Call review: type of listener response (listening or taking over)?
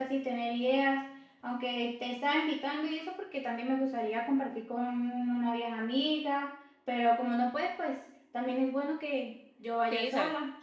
taking over